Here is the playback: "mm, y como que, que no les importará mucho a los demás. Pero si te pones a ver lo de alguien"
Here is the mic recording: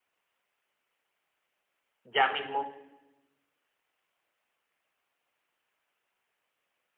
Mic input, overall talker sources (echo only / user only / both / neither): user only